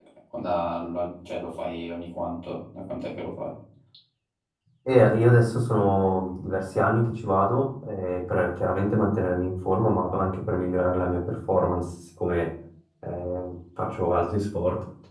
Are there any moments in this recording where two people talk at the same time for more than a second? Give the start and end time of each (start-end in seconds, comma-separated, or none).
none